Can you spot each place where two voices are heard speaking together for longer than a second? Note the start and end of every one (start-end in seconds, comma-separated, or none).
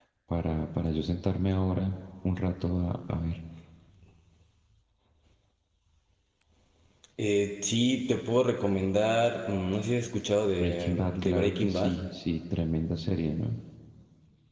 10.6-11.9